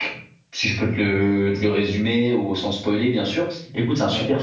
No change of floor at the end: Yes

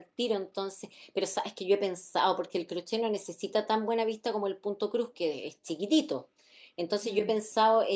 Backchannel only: Yes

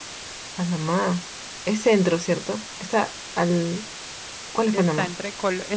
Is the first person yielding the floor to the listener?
Yes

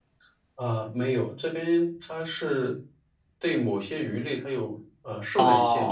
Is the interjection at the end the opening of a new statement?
Yes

